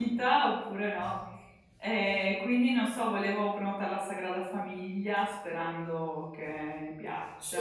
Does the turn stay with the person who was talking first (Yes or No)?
No